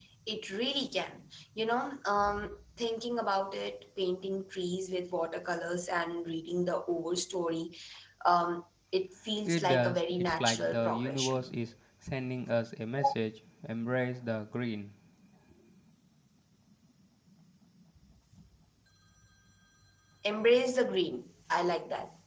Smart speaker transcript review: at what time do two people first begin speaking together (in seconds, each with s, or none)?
9.5 s